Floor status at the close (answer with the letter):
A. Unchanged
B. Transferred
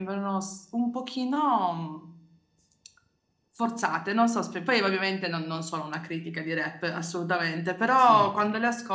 A